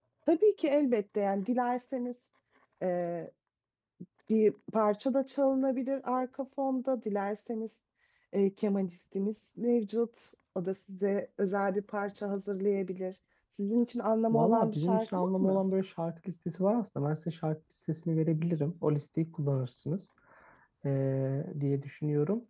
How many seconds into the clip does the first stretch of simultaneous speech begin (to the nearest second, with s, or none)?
14 s